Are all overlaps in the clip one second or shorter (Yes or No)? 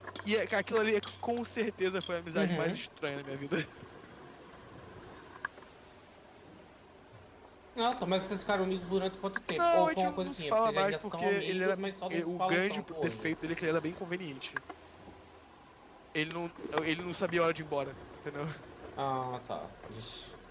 No